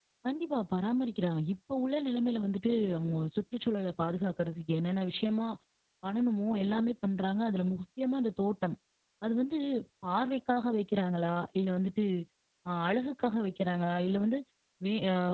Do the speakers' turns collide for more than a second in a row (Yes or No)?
No